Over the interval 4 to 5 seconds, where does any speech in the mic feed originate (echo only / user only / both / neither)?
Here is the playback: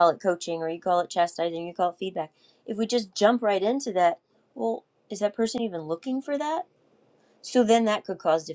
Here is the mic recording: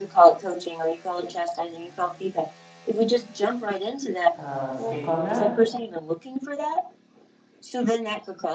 both